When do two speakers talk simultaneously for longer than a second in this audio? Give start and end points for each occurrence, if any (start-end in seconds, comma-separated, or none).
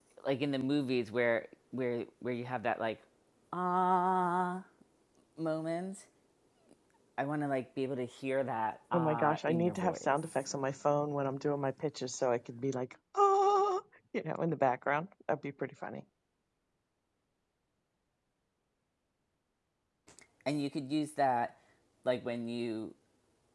8.9-10.4